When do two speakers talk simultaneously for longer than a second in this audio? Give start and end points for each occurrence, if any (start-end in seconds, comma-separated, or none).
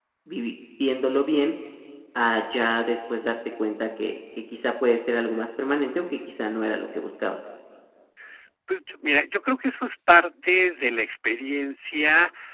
none